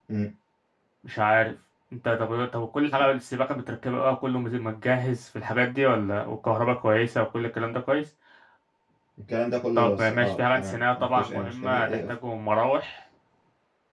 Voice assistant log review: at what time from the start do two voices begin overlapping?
9.8 s

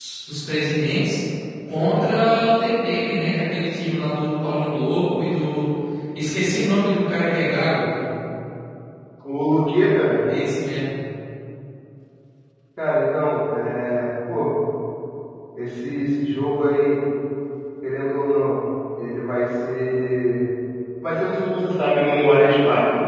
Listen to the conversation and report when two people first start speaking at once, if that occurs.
none

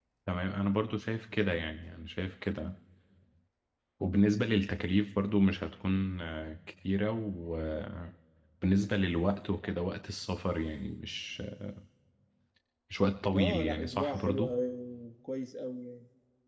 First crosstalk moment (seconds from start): 13.3 s

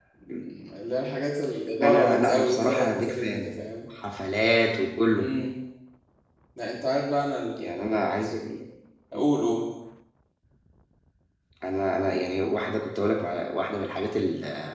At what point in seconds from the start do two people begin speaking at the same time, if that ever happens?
1.8 s

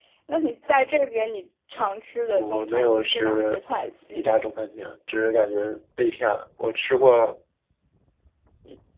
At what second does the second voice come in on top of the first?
2.4 s

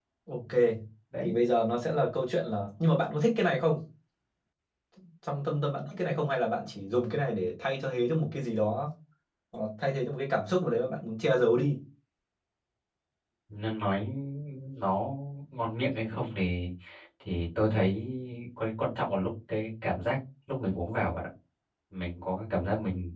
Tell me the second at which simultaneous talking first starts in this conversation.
none

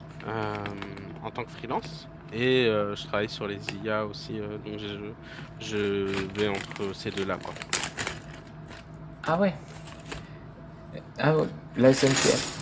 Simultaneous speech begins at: none

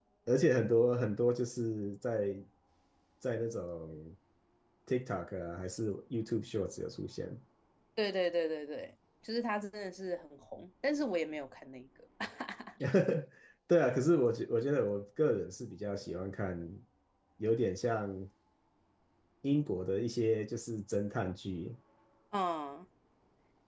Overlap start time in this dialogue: none

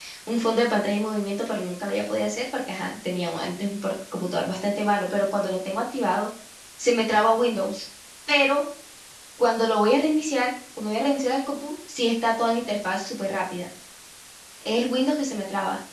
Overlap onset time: none

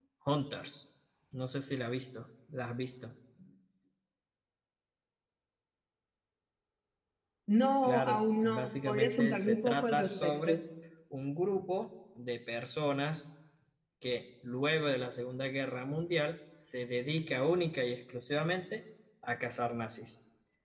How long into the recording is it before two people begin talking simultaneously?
7.8 s

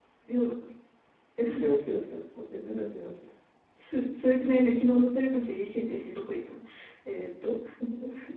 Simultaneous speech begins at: none

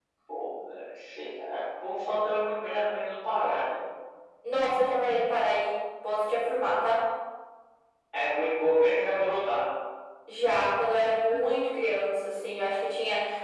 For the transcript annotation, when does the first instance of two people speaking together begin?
none

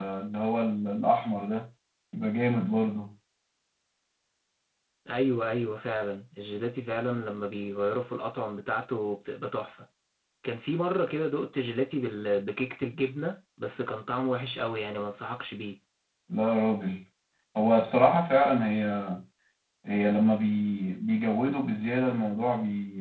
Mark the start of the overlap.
none

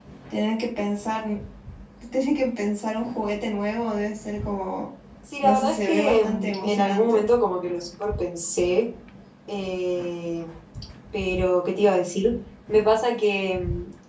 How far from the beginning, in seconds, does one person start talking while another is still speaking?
5.4 s

